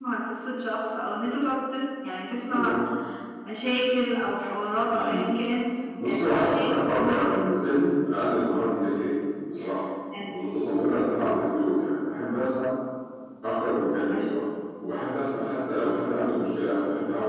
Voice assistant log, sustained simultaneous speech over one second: present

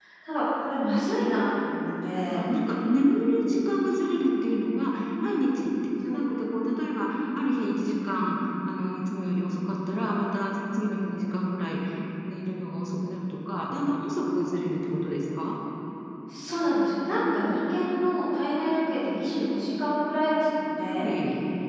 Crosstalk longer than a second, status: none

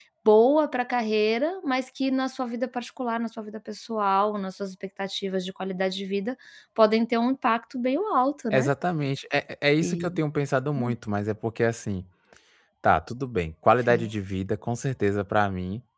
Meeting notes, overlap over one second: none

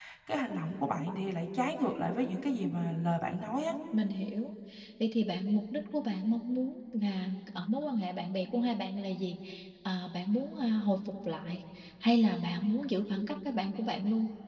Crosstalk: none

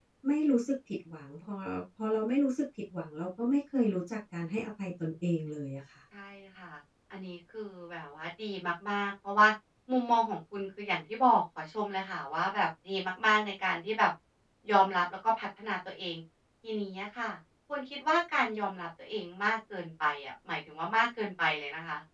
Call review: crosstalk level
none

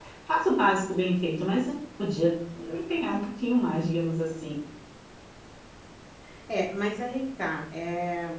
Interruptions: none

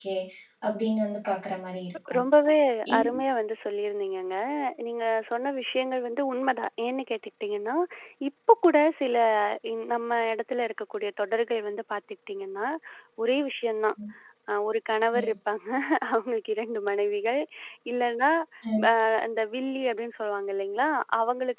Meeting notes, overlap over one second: none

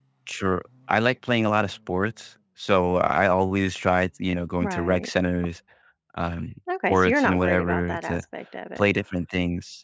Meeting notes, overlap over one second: present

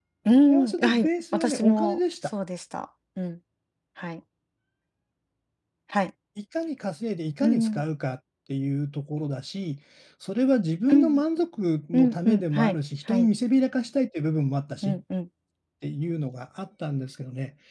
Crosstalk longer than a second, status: present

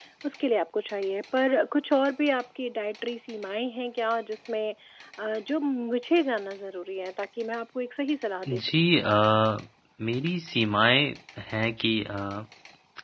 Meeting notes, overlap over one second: none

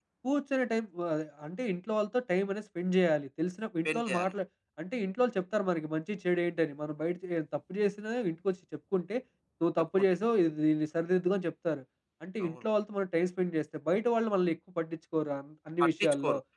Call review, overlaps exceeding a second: none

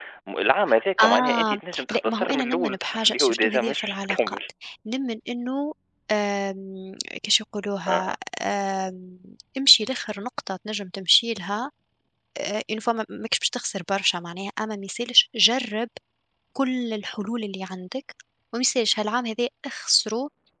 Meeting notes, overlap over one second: present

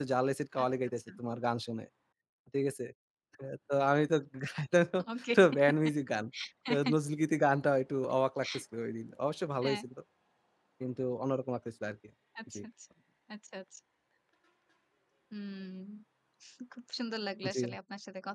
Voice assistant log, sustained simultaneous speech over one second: none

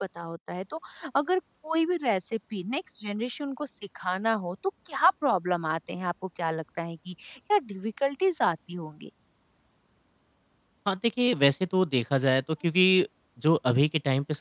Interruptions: none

